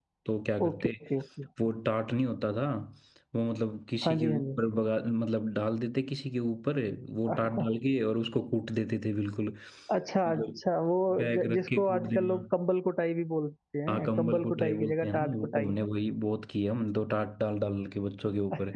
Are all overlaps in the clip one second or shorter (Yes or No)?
No